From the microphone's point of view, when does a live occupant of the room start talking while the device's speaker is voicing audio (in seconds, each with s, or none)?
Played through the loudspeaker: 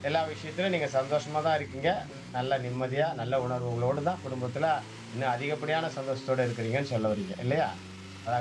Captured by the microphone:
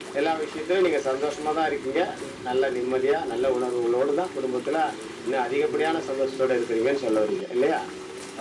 none